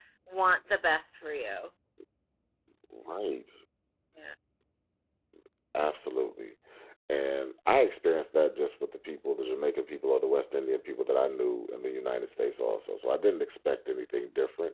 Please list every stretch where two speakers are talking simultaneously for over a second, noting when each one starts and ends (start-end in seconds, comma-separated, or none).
none